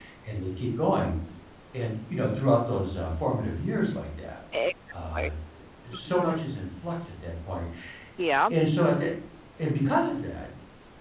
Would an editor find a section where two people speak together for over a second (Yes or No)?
No